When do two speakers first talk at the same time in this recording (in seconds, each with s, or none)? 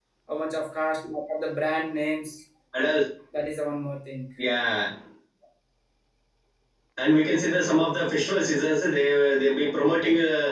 none